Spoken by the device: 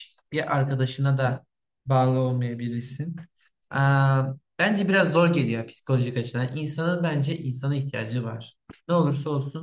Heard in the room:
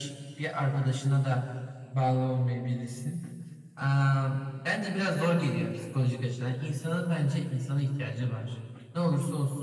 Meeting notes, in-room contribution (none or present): none